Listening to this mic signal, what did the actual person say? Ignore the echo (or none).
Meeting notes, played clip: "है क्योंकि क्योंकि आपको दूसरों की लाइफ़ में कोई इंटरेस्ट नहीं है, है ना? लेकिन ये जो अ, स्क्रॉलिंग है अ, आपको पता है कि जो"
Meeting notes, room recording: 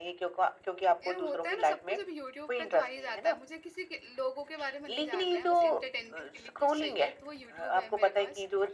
ये होता है ना सब कुछ अभी यूट्यूब पे तो आ ही जाता है। मुझे किसी के लोगों के बारे में नहीं जानना है, बस एंटरटेनमेंट के लिए कुछ चाहिए तो वो यूट्यूब है मेरे पास